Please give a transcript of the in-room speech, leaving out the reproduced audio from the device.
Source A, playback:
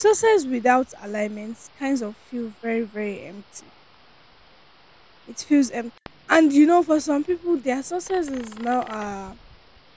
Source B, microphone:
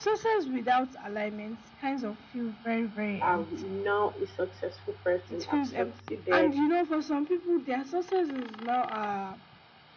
I'm now a successful person. I've succeeded,

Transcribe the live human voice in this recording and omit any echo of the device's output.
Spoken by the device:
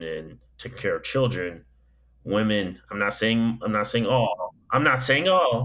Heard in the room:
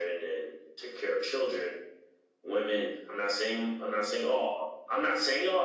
none

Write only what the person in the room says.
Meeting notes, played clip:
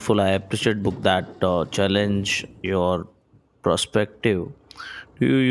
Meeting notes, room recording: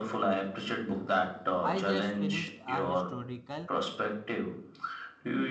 I just finished a historical

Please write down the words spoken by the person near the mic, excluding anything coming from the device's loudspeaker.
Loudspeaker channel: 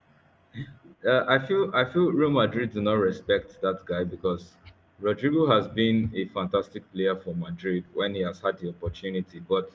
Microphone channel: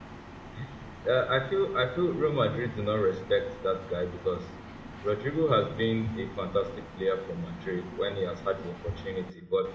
none

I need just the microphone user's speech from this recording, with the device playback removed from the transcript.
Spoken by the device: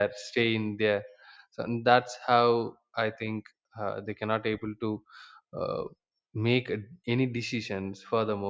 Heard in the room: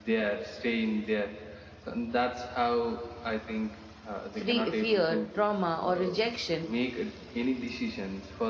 free, fear, trauma, or rejection,

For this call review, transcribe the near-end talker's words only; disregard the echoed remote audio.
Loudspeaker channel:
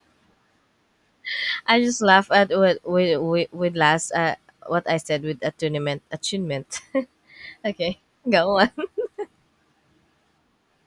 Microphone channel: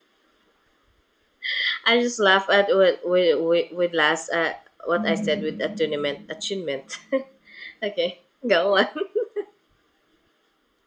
Mhm.

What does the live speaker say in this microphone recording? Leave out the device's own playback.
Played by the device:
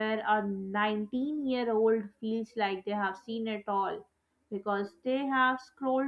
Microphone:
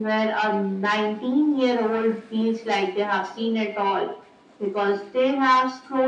none

